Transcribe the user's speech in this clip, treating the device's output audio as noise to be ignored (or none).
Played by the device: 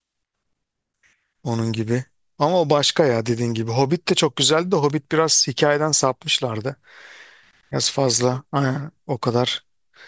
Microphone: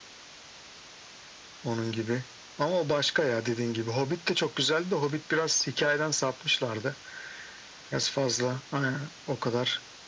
none